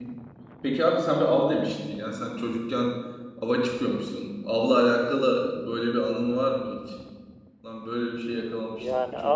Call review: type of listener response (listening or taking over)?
taking over